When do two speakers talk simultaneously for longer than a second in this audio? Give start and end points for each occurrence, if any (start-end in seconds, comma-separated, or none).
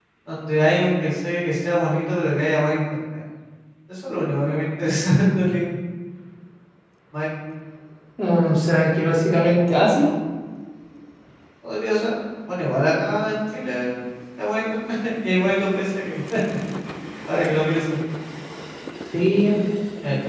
none